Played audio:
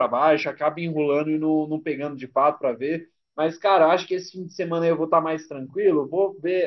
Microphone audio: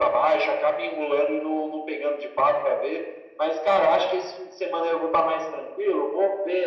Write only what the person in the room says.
none

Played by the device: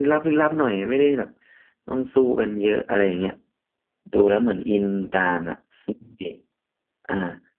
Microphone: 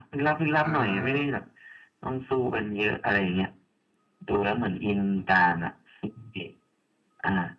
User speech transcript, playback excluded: อ่า

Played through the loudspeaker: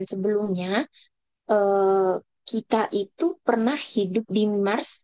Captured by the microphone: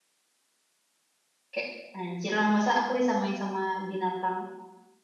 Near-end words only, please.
Kayak anjir lah masa aku disamain sama binatang

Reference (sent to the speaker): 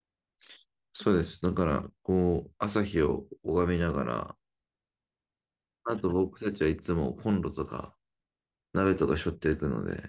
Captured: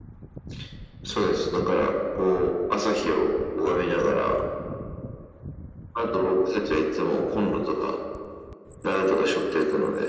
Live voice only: none

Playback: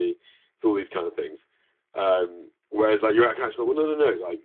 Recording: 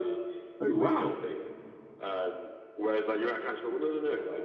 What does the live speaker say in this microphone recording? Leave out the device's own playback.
Oh wow.

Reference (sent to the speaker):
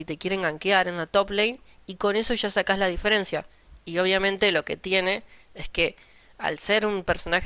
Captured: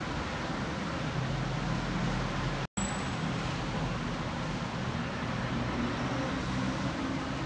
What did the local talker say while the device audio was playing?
none

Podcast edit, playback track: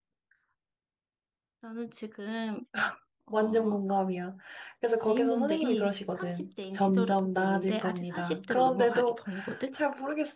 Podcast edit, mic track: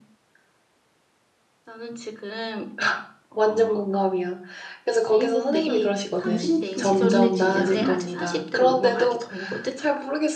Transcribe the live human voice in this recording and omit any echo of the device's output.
정신도 개운해지지 않아?

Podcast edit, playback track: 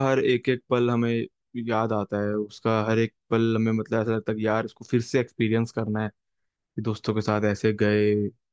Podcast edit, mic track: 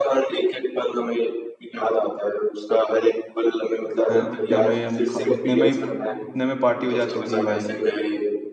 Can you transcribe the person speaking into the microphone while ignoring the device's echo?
हैं, उतने में हम खा- उतने में ही उतने में पार्टी हो जाती थी भाई

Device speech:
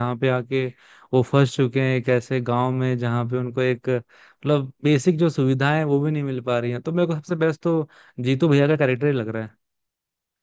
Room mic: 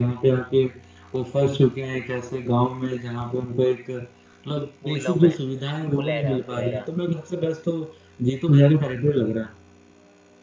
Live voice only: भूल रहा हूँ मैं फुलेरा फुलेरा

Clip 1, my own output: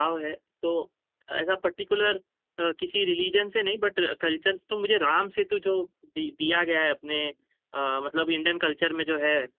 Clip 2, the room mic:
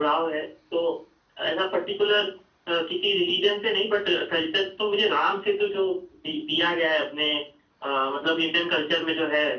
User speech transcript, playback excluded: none

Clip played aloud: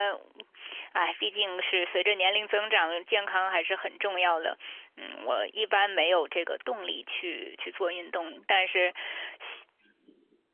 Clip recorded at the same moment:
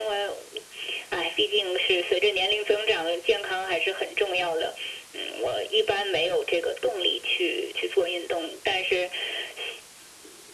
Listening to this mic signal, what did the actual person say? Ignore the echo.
none

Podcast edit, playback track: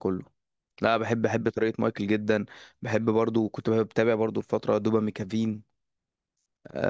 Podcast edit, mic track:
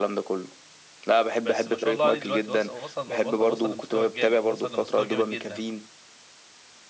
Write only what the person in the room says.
بس ما شاء الله عليه دلوقتي وصل وصل وصل وصل لمستوى جامد وصل لمستوى جامد جدا

